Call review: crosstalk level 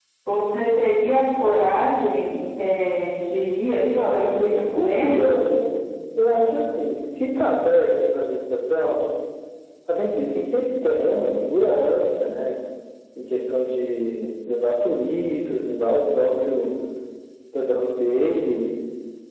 present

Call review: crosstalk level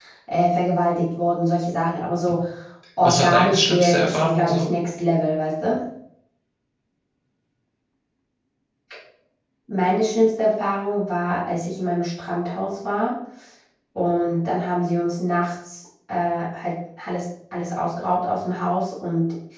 present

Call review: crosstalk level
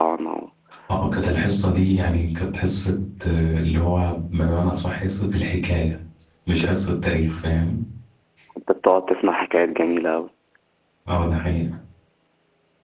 none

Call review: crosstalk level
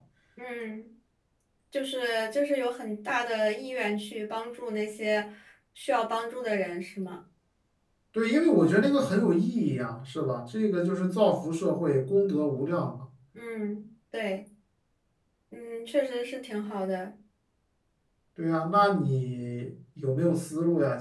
none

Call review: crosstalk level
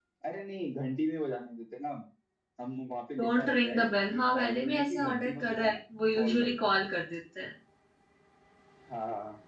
present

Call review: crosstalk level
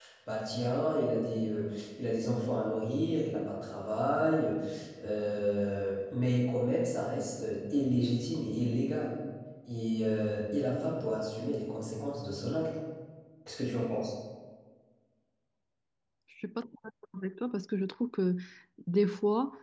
none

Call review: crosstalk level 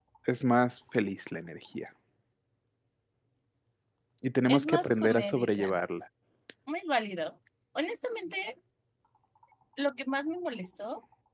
present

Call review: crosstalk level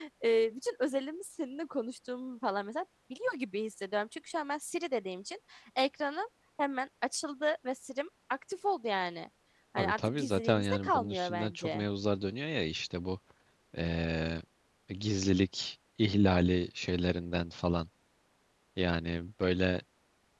present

